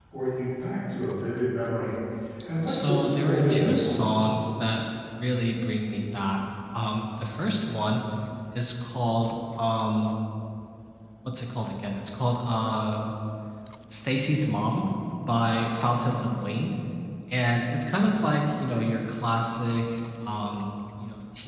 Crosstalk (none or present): present